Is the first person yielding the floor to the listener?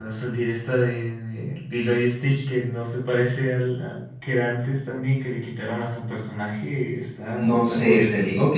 Yes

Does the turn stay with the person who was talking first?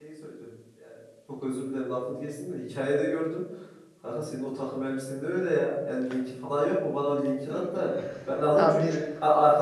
Yes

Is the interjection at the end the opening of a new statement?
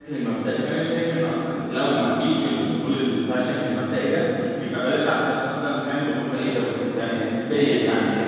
No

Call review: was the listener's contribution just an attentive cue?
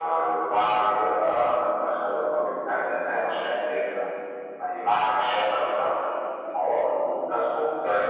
No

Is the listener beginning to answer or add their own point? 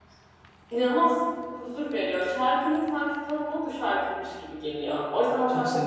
No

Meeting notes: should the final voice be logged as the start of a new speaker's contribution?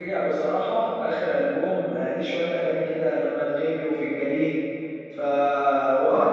Yes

